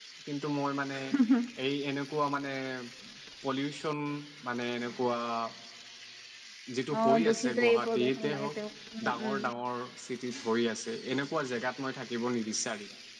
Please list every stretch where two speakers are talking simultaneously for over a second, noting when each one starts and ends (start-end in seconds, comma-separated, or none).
7.0-8.6